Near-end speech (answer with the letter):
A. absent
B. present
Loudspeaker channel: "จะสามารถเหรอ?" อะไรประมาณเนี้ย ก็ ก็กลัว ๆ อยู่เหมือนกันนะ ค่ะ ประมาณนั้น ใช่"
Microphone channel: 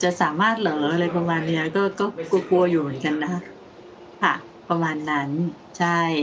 B